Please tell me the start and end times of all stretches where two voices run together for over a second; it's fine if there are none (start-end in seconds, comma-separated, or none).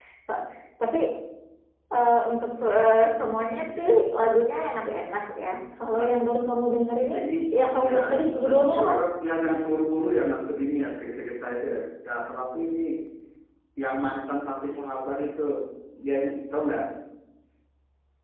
7.6-8.9